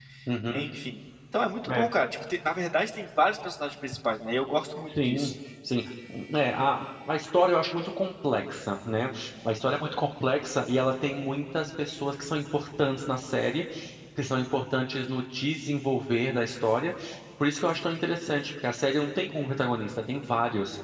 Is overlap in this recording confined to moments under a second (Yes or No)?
Yes